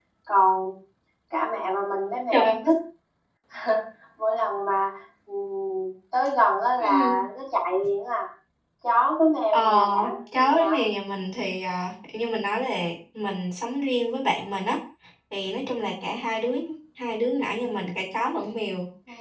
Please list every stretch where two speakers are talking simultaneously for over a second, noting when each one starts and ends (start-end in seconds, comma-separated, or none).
9.5-10.8